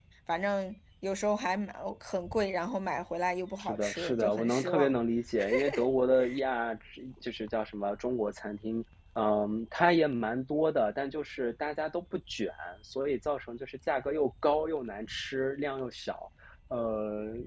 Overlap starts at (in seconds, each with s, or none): 3.6 s